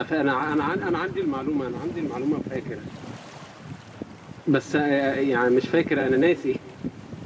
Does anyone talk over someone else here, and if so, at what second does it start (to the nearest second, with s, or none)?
none